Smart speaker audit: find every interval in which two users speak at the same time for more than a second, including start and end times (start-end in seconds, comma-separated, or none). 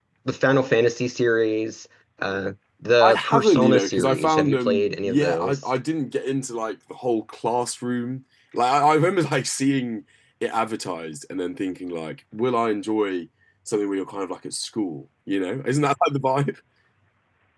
3.0-5.6